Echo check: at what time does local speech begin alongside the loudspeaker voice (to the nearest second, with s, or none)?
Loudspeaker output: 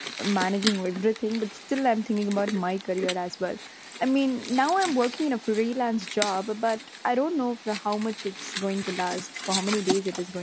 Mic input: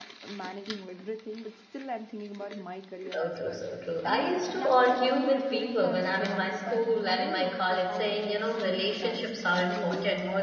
3 s